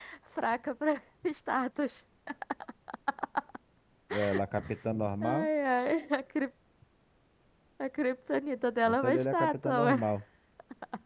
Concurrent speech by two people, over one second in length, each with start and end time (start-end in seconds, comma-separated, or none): 8.8-10.1